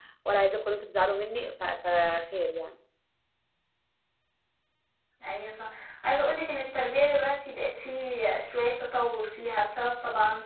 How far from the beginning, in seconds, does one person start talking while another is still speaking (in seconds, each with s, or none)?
none